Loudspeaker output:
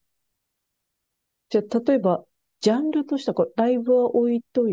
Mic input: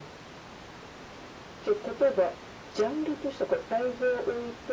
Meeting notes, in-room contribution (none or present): none